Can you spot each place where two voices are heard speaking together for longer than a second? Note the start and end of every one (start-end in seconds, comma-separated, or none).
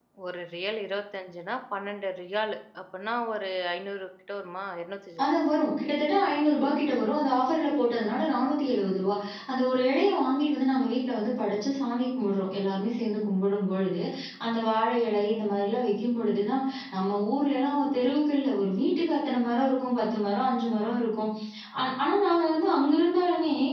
none